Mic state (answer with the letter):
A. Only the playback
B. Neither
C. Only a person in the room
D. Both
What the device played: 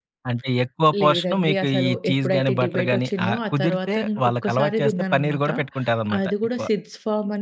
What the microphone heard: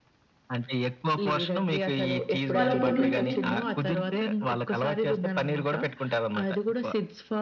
D